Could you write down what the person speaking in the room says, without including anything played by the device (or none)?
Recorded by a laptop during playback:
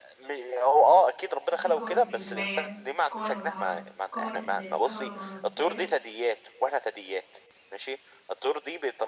وفي قوة الجاذبية قوة الهجهر قوة الكهرومغناطيسية